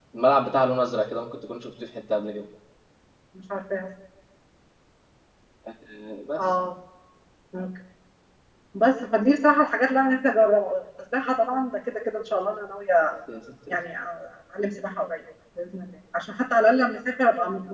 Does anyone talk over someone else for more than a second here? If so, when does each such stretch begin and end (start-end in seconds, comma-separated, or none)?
none